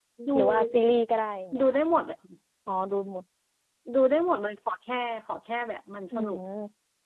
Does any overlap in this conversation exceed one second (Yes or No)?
No